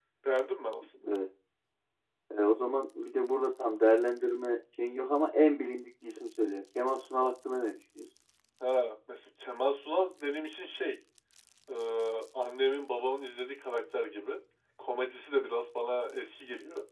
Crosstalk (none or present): none